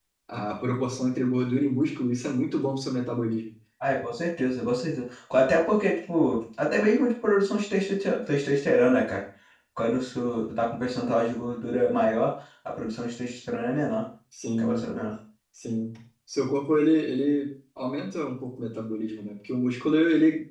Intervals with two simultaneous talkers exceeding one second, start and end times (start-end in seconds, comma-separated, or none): none